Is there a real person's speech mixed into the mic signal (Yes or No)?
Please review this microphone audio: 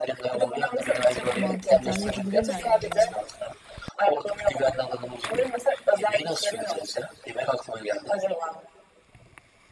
Yes